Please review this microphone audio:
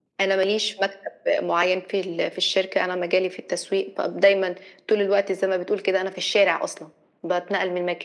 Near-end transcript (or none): none